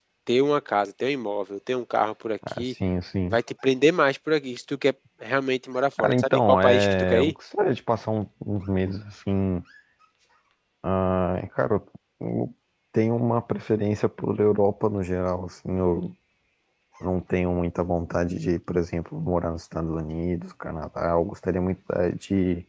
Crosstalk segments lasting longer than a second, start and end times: 6.0-7.3

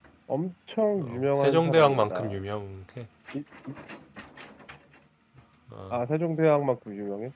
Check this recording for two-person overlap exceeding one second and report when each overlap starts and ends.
1.0-2.4

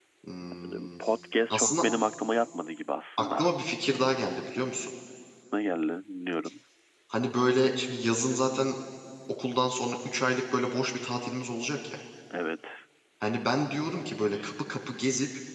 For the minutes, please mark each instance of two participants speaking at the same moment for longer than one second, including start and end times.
none

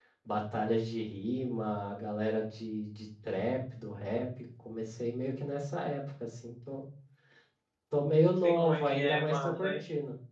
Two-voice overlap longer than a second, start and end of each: 8.4-9.8

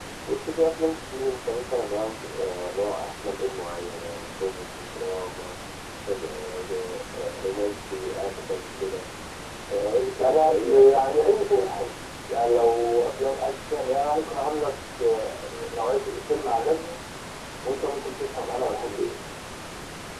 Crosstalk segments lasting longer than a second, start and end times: 10.2-11.8

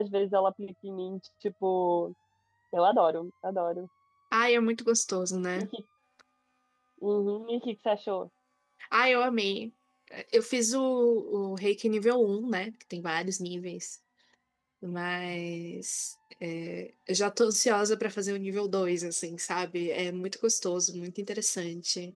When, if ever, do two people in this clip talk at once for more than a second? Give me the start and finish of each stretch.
none

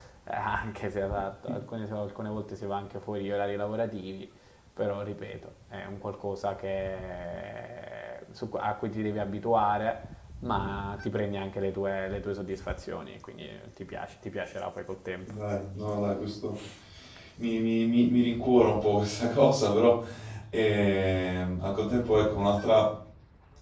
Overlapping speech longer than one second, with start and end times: none

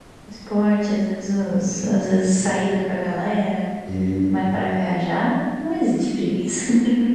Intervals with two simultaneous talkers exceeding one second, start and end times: 1.5-2.8

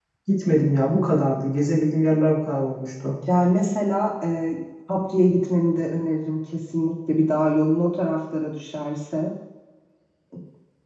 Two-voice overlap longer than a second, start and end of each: none

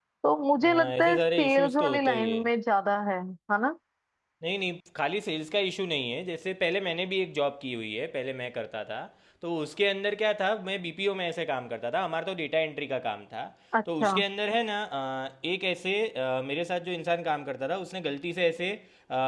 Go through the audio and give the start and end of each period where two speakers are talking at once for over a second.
0.6-2.4

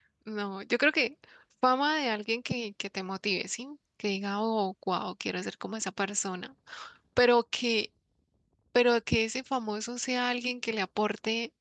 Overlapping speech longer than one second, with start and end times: none

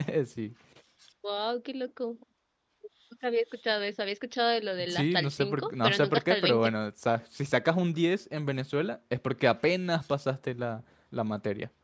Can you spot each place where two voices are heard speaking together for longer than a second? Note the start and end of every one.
4.9-6.7

